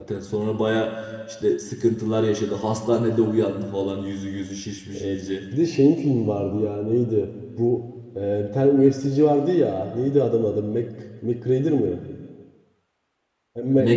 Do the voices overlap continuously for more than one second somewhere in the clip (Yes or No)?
No